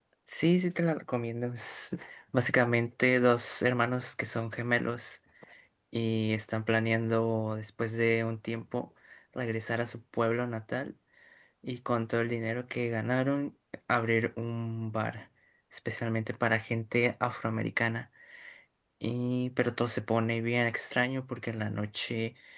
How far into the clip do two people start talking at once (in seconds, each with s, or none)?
none